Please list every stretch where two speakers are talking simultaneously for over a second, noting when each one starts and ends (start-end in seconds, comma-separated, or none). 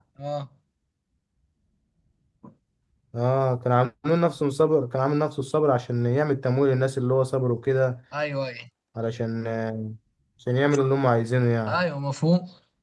none